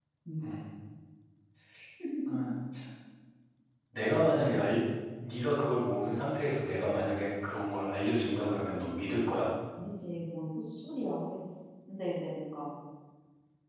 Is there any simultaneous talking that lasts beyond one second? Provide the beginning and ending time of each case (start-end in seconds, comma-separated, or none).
none